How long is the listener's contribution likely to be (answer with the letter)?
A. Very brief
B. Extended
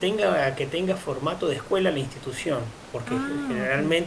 A